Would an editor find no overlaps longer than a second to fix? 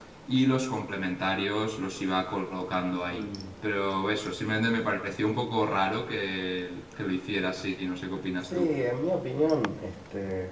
Yes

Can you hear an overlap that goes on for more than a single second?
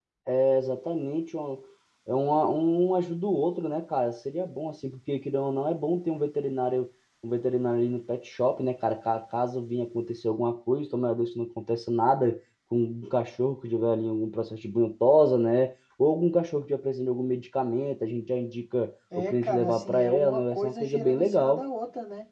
Yes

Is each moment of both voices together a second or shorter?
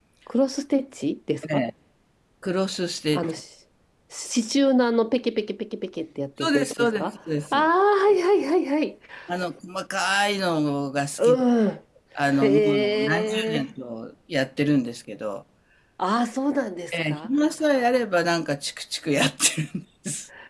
No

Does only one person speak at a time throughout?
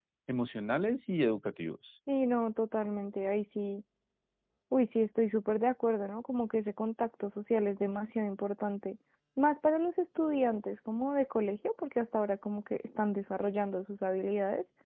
Yes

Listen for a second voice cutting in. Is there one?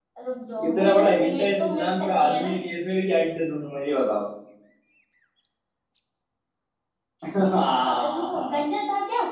Yes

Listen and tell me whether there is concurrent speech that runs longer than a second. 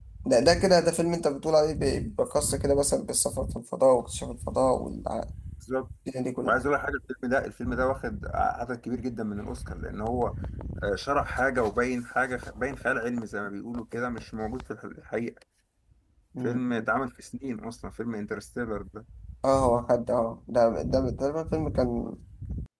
No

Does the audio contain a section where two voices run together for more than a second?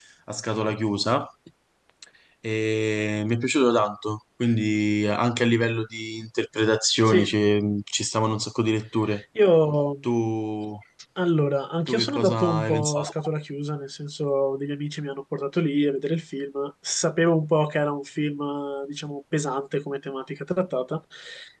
Yes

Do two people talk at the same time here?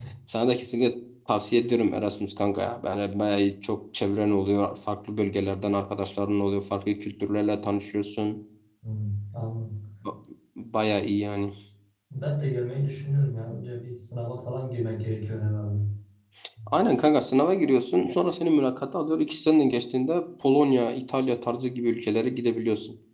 No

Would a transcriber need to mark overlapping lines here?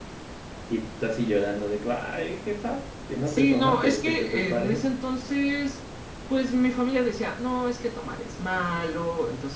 Yes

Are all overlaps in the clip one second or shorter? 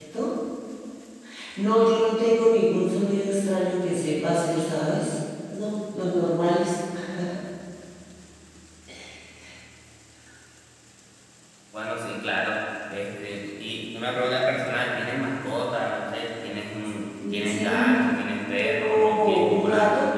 No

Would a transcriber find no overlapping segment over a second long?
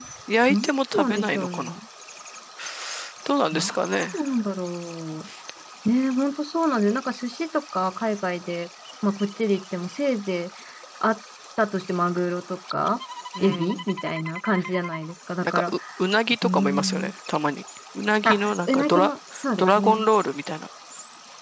No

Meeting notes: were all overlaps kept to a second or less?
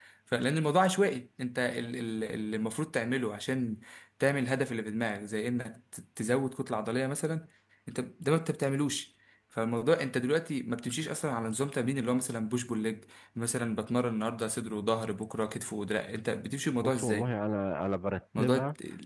Yes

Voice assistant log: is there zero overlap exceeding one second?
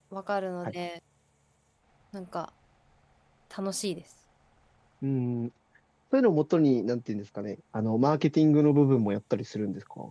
Yes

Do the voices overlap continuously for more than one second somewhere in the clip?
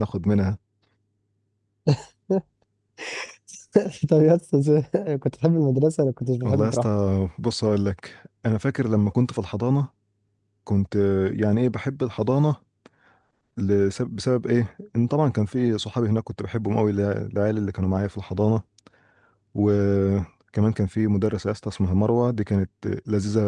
No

